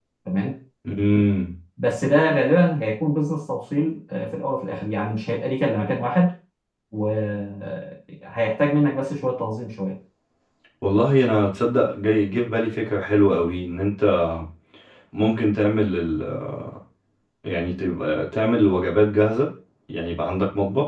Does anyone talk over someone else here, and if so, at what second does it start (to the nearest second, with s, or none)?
none